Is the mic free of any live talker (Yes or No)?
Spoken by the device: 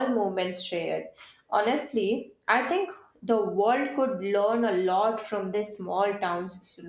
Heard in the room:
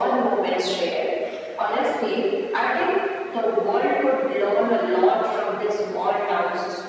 Yes